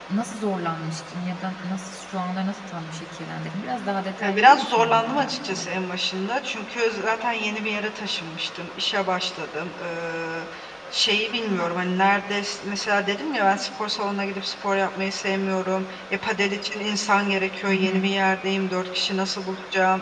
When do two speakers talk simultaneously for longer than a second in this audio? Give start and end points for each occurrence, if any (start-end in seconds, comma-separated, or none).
4.2-5.6